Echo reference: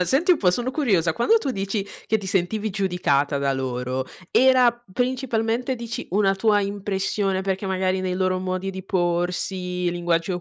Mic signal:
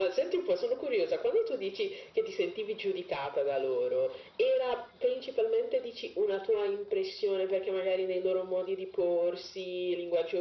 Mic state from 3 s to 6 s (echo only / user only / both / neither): echo only